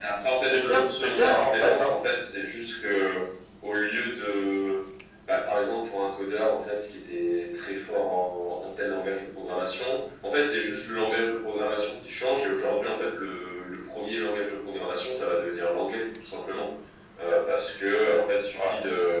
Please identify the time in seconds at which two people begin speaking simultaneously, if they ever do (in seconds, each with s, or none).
0.5 s